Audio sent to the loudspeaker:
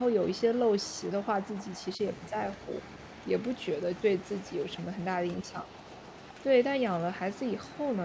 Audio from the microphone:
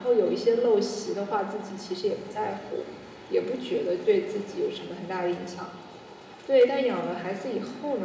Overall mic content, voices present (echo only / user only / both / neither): echo only